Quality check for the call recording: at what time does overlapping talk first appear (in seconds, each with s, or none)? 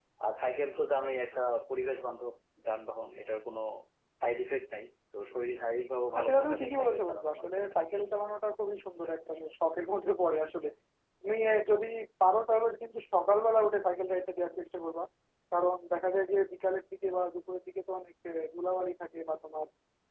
6.1 s